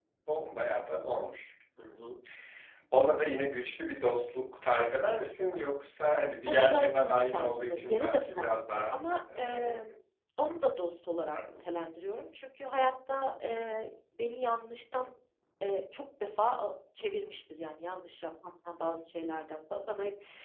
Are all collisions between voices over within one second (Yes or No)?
No